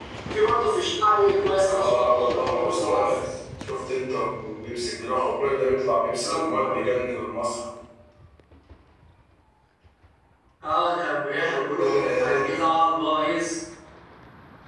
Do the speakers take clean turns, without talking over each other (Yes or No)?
No